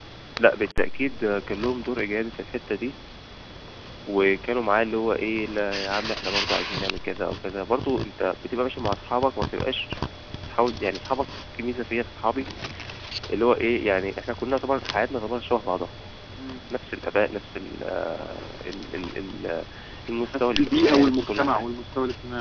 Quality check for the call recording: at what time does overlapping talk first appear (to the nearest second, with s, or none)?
20 s